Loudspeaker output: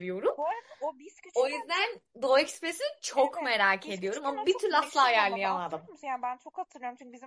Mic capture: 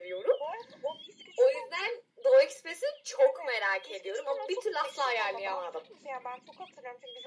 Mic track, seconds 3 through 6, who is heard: echo only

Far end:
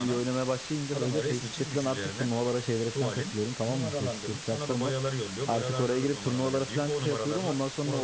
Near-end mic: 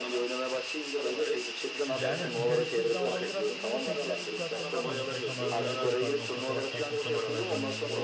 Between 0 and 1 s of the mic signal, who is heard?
echo only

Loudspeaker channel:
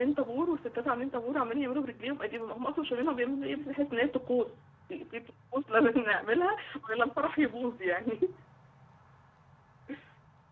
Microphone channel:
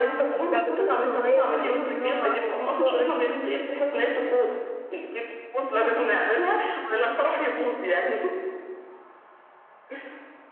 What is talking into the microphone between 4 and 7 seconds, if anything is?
echo only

